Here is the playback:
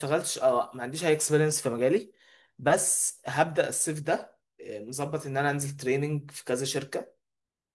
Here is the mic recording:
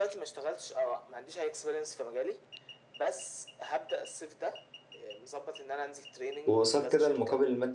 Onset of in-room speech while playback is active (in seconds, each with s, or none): 6.5 s